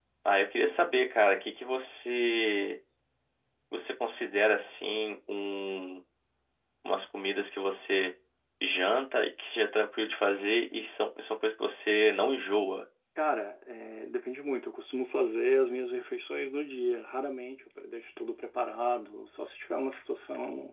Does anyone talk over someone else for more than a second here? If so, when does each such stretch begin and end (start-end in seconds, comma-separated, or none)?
none